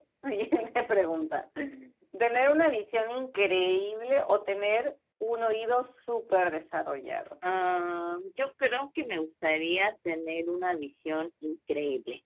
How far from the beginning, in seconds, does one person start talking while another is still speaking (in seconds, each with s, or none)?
none